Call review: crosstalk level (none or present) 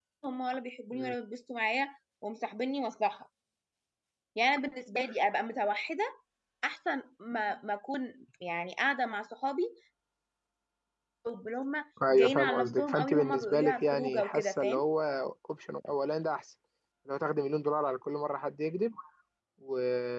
present